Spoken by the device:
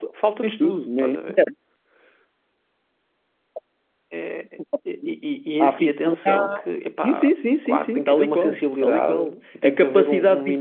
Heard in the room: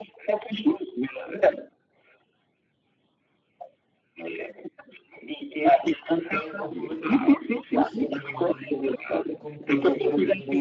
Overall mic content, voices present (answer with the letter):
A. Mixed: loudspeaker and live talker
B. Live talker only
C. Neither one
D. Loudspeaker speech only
A